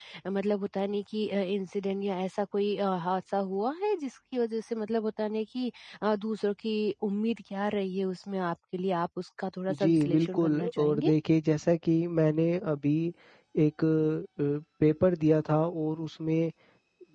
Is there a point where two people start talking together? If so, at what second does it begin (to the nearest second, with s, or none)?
10 s